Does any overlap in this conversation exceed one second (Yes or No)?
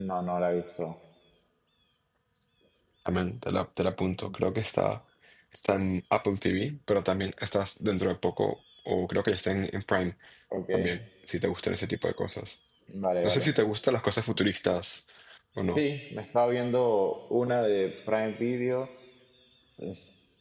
No